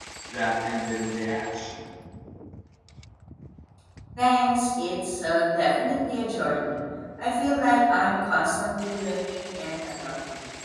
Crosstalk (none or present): none